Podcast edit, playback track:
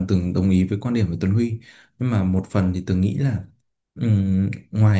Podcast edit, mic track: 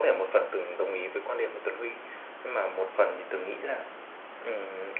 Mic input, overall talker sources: echo only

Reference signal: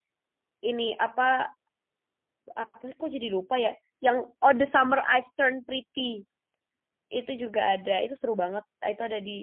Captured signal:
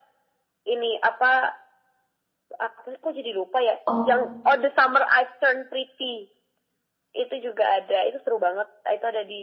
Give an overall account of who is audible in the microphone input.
both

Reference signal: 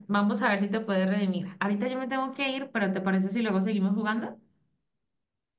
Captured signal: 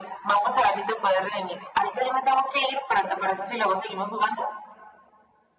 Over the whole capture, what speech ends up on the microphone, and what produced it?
echo only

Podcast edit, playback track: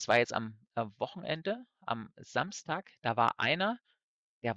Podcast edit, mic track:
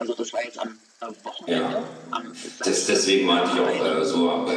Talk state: both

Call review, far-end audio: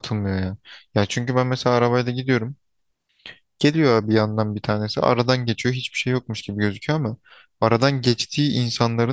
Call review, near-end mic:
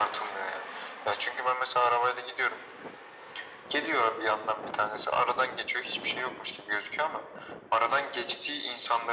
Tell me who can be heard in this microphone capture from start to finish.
echo only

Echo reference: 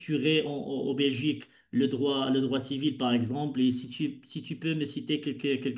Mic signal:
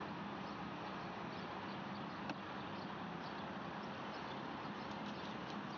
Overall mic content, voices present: neither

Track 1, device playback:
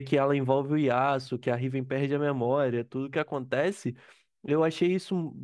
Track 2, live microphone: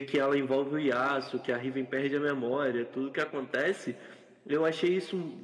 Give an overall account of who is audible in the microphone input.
echo only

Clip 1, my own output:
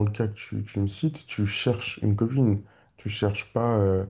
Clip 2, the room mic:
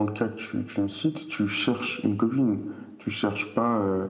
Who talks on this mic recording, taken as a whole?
echo only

